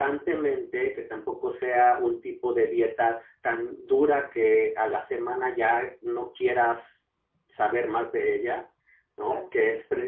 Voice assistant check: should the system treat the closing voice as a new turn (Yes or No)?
No